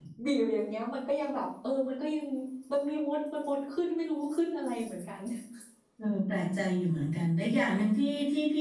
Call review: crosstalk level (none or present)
none